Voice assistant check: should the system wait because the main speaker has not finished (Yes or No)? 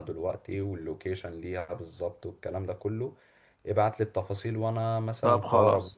No